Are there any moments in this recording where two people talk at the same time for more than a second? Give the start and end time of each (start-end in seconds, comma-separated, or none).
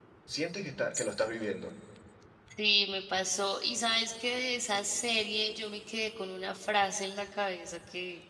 none